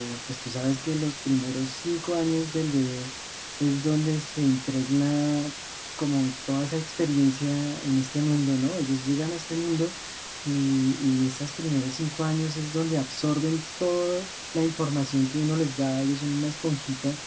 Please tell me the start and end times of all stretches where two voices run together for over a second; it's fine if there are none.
none

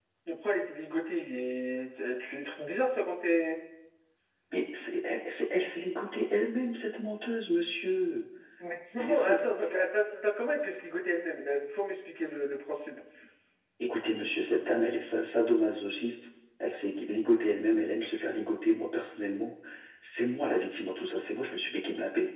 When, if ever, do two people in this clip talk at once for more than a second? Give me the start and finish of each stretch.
none

